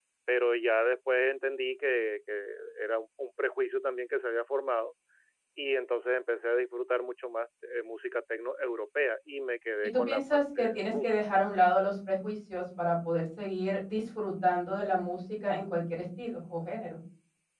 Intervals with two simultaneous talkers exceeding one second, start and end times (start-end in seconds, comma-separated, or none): 9.8-11.1